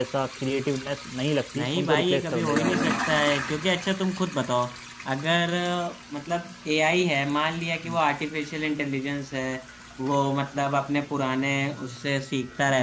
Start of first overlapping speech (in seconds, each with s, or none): 1.5 s